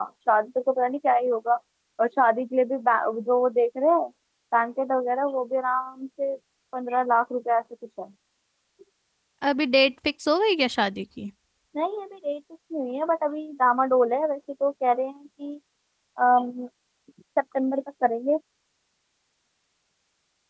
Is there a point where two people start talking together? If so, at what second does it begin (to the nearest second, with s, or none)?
none